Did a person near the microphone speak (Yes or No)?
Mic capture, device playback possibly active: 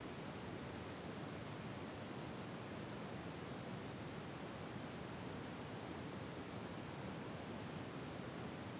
No